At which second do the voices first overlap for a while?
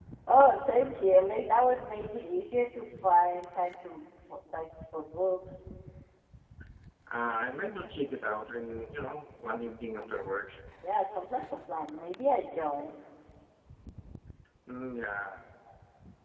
none

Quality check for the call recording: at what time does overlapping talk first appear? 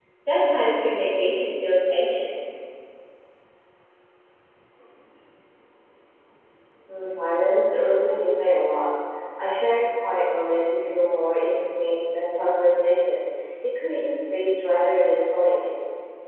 none

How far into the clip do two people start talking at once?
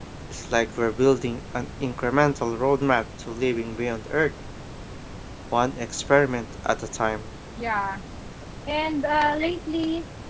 none

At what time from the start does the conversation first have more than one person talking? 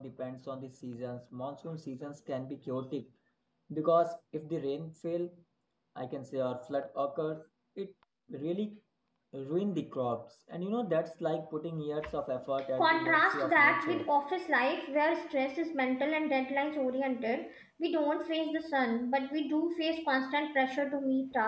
12.8 s

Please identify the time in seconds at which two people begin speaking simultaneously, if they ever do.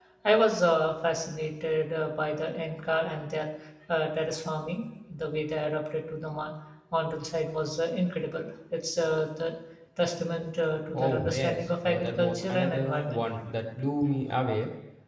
10.9 s

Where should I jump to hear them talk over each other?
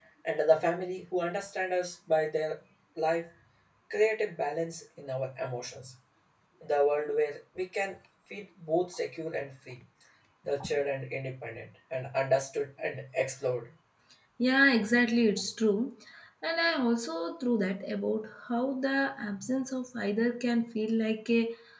none

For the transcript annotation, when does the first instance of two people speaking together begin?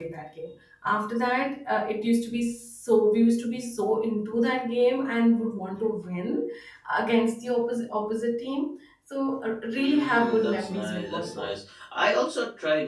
9.8 s

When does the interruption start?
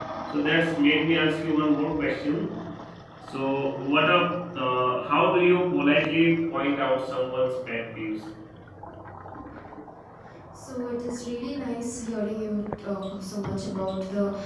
none

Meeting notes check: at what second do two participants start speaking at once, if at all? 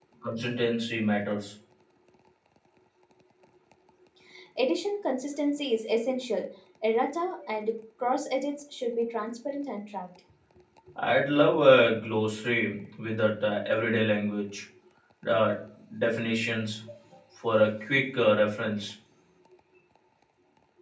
none

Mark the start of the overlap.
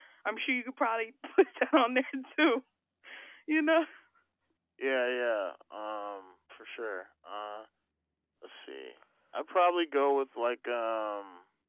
none

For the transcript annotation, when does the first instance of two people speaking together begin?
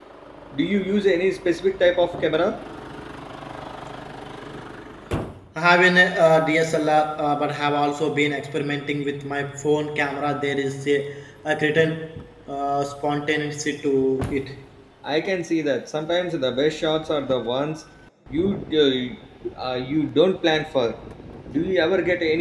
none

